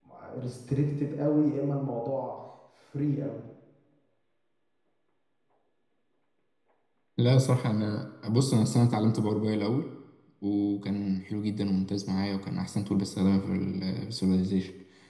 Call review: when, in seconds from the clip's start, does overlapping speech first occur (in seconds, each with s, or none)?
none